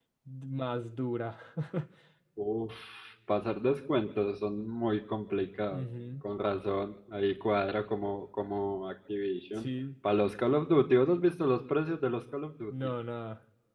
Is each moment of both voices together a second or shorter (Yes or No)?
Yes